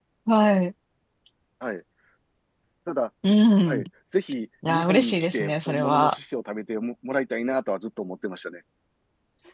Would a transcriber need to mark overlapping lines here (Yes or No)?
Yes